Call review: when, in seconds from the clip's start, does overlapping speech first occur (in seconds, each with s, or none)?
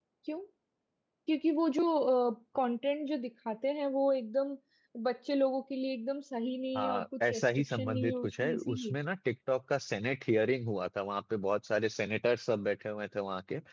6.8 s